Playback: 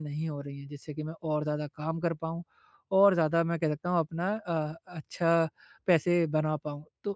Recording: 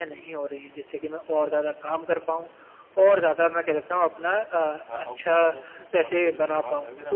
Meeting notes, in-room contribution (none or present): present